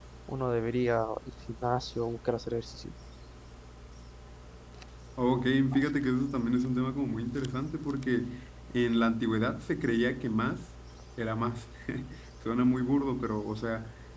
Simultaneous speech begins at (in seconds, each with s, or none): none